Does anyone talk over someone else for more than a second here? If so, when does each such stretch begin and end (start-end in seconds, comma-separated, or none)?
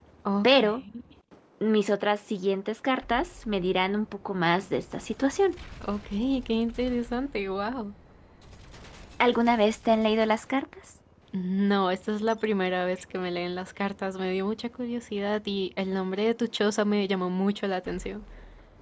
none